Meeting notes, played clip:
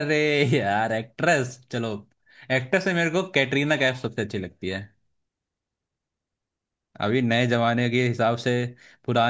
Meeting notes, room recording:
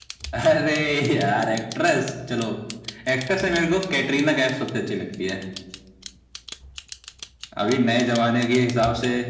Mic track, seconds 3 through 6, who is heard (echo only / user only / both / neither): echo only